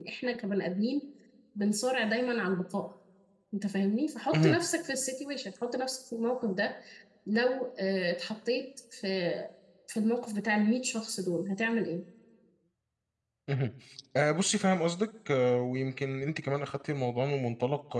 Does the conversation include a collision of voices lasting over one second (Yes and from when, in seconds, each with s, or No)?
No